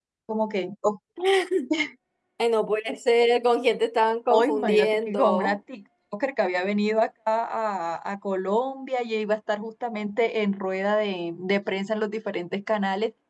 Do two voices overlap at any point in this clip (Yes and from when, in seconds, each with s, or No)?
Yes, from 4.3 s